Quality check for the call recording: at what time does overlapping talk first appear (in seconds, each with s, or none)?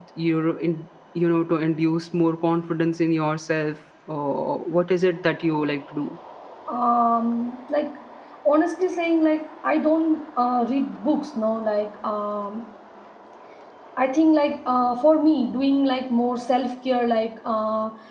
none